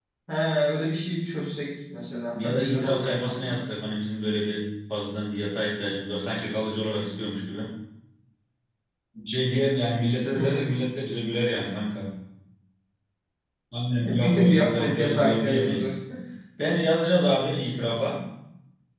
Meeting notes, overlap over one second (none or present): present